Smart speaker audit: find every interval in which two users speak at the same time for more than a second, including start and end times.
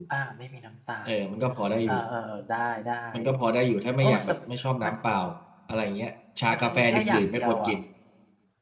6.5-7.7

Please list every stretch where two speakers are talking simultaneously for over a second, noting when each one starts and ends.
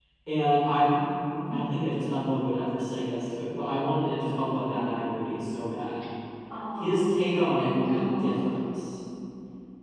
6.8-8.6

